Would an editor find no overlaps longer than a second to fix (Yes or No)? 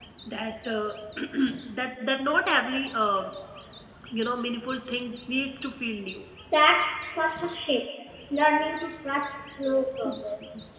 Yes